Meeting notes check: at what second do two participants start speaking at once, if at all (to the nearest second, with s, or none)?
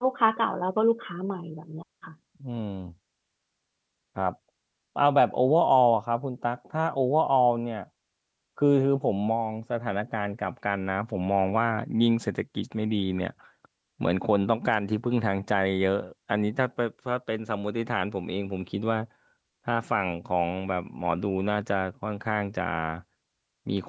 none